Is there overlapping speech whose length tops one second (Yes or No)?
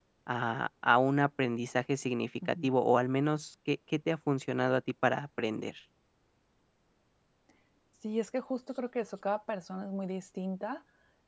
No